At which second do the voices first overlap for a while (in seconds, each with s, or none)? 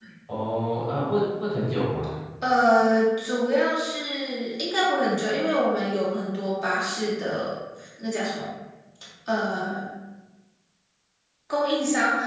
none